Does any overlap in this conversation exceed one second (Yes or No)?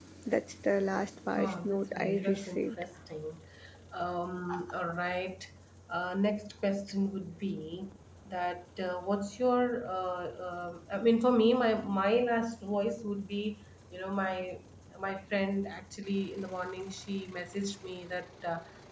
Yes